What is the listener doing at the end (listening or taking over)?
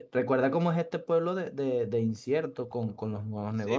taking over